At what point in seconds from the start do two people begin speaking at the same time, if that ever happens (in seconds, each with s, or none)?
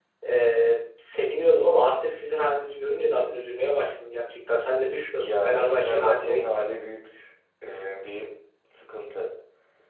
5.2 s